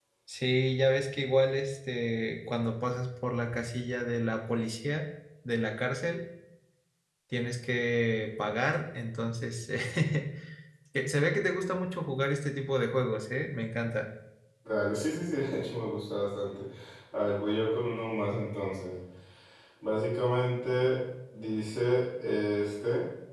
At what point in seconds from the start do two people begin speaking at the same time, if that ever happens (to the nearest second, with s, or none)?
none